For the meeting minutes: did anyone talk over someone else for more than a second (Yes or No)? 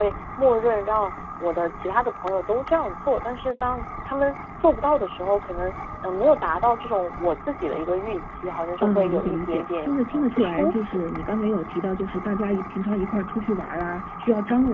Yes